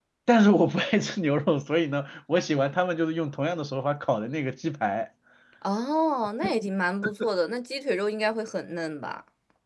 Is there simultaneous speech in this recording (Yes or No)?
No